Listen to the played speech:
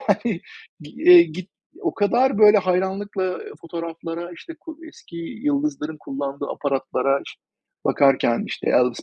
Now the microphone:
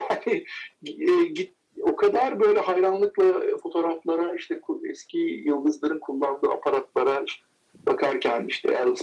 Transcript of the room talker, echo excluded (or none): none